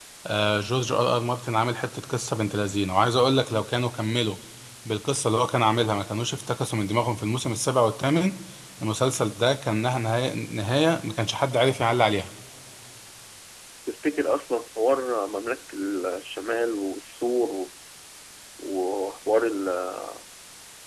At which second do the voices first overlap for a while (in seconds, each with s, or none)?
none